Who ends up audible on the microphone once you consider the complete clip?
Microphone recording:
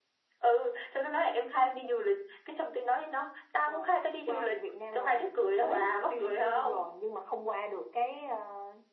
echo only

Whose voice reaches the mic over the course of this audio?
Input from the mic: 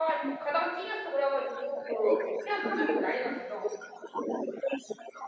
both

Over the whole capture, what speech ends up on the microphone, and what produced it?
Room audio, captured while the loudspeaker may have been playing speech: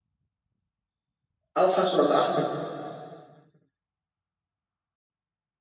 user only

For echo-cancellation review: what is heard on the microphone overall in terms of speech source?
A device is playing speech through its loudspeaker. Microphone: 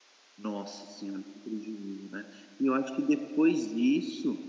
user only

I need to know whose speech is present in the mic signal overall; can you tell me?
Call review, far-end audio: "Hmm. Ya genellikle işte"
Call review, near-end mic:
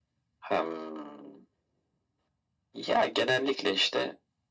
echo only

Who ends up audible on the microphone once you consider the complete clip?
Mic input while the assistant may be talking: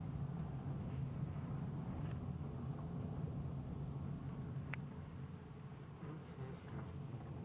neither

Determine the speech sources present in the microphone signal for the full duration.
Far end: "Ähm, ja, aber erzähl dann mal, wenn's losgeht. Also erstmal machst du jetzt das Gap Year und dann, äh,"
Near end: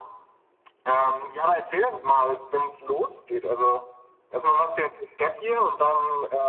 echo only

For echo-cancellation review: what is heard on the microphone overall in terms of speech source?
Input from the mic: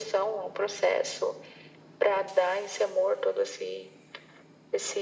echo only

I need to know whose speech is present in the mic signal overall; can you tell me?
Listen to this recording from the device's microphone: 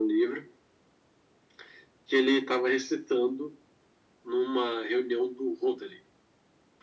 echo only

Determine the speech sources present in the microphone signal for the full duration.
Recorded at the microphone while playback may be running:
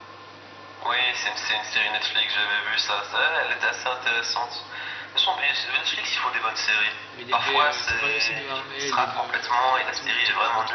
both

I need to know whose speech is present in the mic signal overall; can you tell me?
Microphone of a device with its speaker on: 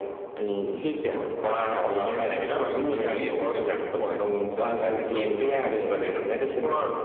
both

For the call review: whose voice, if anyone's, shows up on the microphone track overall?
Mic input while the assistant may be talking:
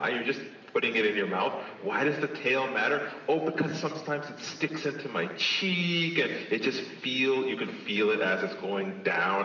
echo only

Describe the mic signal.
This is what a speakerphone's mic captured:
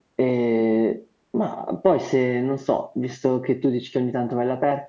echo only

